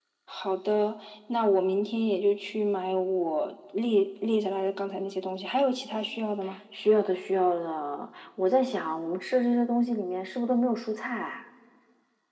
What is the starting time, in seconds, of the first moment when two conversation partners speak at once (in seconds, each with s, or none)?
none